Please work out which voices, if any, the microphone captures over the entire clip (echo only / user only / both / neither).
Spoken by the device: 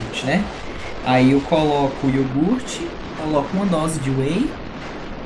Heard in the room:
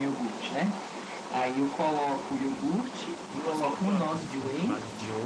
both